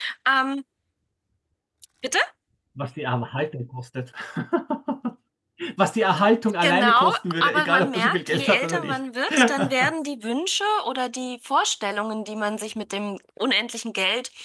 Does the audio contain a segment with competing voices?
Yes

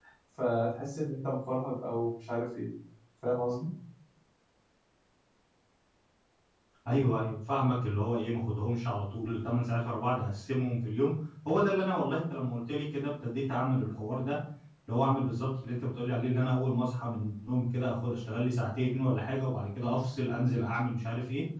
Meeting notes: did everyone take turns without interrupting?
Yes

